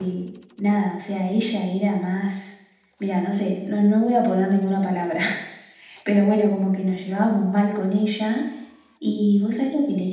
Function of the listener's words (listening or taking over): listening